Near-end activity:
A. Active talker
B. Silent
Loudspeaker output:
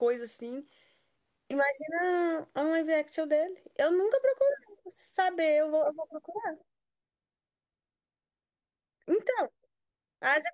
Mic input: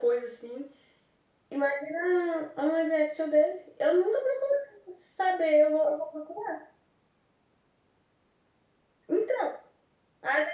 B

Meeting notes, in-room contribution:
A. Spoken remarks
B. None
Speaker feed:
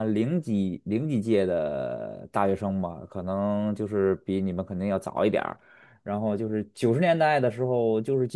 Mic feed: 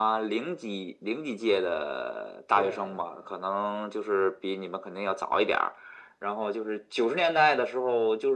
A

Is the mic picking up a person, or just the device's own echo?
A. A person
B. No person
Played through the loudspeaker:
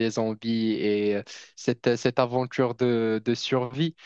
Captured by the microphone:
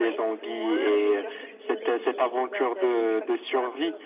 A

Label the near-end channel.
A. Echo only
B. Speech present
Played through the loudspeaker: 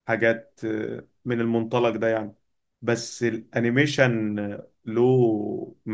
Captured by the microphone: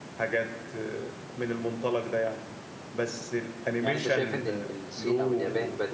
B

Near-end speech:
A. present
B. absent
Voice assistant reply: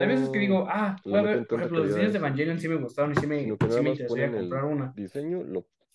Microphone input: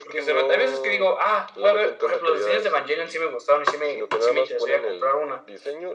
B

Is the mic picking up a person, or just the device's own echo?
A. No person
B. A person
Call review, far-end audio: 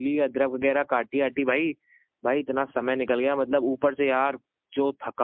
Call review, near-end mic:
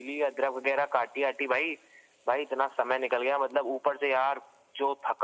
A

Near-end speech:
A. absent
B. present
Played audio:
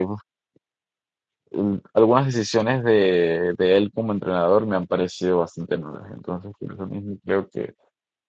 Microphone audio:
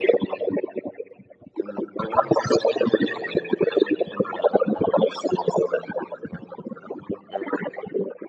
A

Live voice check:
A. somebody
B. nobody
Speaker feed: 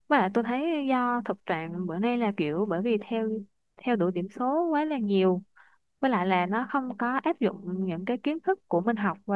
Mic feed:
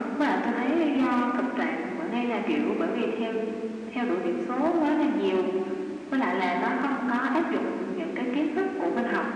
B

